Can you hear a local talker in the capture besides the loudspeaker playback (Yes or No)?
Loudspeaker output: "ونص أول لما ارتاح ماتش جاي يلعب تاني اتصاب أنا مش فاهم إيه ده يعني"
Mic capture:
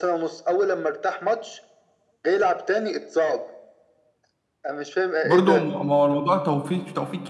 Yes